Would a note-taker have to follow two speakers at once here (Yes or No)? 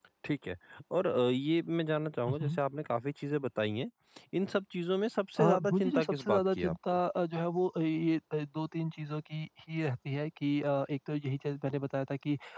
Yes